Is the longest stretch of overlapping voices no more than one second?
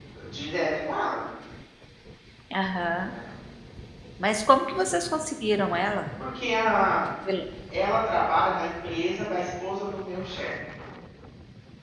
Yes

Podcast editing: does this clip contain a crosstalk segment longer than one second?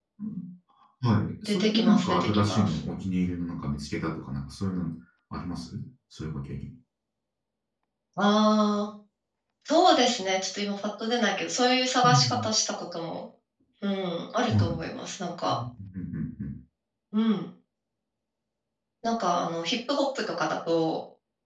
Yes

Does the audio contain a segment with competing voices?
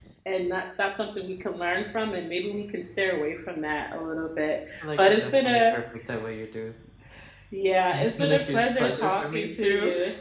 Yes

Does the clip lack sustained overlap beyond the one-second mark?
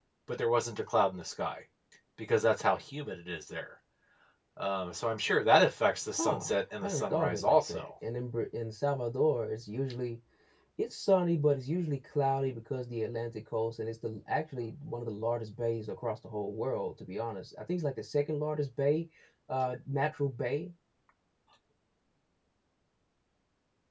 No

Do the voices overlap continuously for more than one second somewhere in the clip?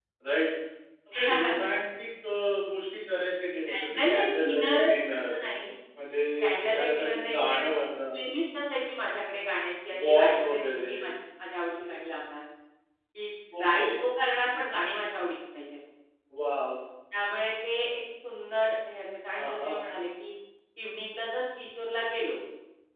Yes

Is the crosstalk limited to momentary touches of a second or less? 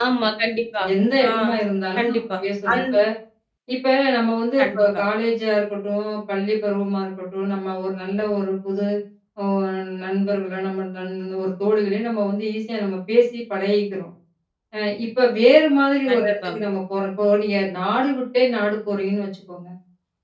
Yes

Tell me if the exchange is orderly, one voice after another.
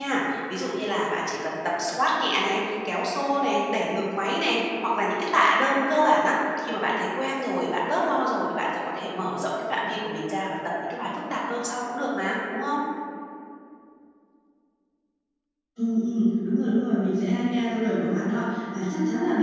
Yes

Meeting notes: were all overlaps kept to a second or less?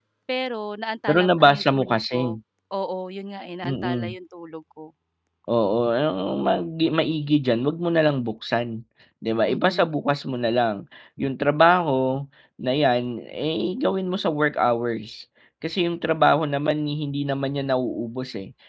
No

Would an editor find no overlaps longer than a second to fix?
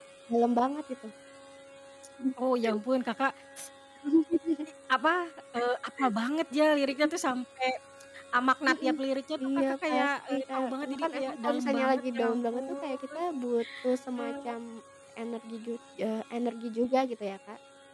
No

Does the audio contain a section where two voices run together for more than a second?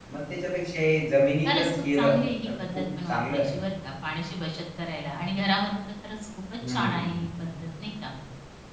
Yes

